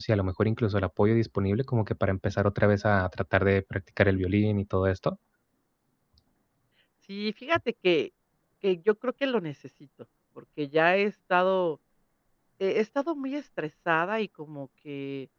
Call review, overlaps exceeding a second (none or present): none